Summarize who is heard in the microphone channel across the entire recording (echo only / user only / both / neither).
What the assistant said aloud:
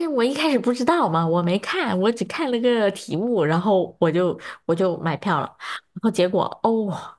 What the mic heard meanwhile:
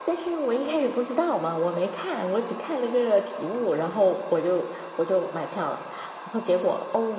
echo only